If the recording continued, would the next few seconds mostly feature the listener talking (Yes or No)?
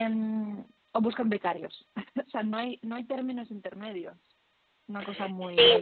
Yes